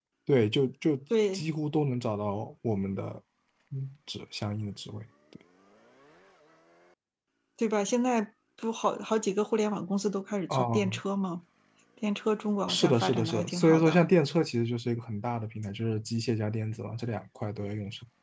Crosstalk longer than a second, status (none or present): present